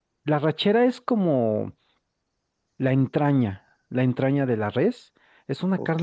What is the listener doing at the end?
listening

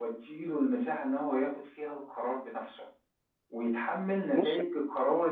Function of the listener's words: listening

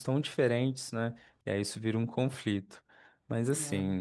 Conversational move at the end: listening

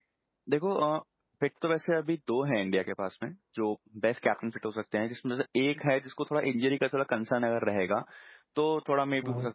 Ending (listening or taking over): listening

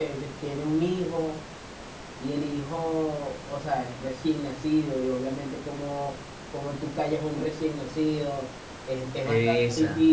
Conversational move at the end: listening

